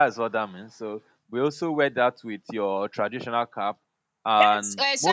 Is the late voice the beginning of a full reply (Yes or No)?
Yes